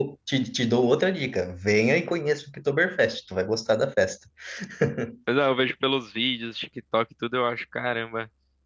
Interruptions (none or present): none